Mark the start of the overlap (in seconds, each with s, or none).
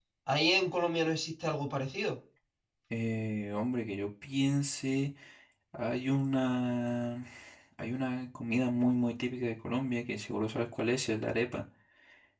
none